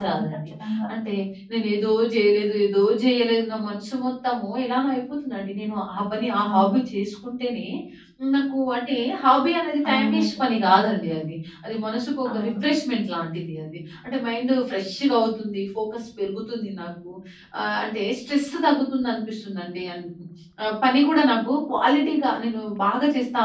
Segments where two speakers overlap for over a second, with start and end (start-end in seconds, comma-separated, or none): none